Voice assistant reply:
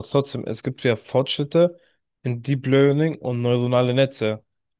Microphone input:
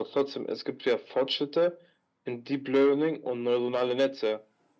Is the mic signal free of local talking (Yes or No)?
Yes